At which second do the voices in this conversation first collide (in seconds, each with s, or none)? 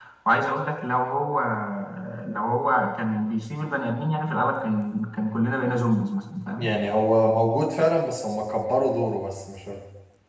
none